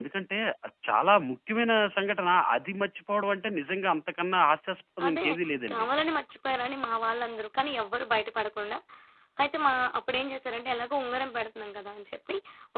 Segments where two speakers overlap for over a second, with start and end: none

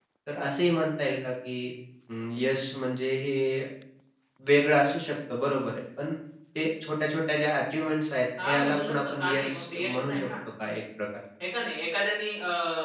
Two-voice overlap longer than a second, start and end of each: 8.4-10.3

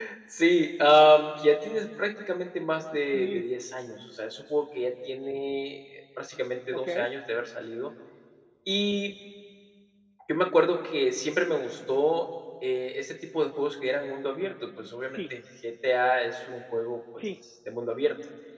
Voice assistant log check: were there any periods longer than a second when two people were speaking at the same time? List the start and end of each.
none

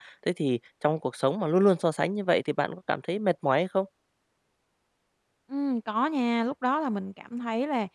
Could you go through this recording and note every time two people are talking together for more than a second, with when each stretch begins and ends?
none

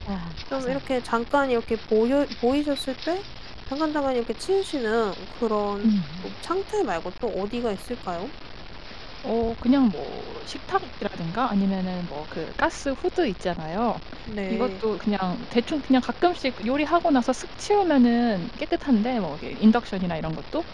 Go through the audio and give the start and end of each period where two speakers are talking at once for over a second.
none

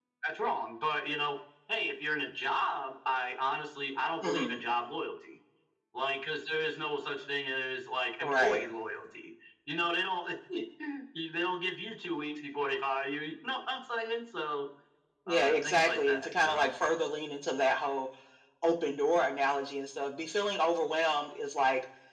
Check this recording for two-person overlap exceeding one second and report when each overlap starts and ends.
15.3-16.8

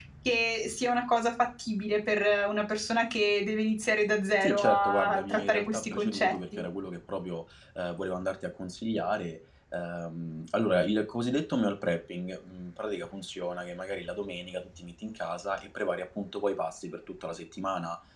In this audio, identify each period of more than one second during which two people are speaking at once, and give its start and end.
4.4-6.6

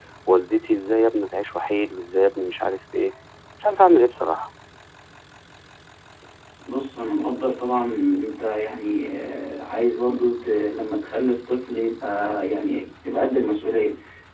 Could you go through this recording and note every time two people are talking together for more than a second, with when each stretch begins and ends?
none

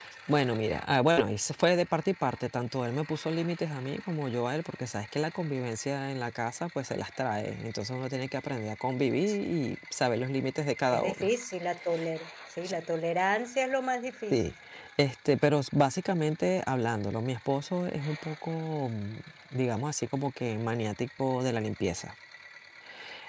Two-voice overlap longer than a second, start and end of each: none

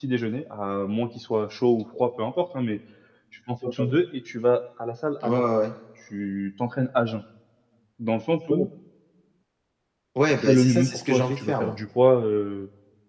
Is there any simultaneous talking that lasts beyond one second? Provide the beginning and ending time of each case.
10.4-11.8

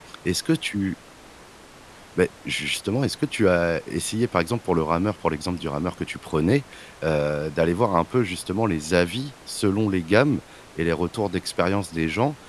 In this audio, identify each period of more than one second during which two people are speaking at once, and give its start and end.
none

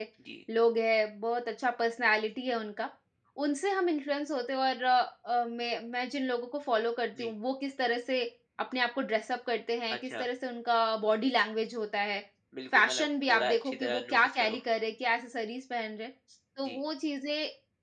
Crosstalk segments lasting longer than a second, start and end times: 12.7-14.6

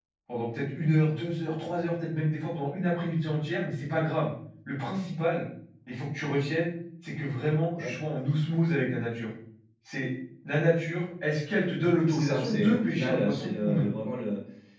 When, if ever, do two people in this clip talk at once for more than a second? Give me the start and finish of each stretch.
12.1-13.8

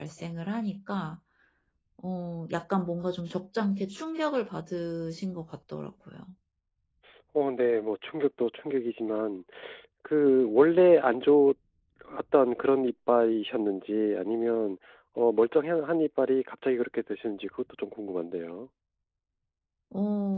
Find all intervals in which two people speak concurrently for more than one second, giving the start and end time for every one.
none

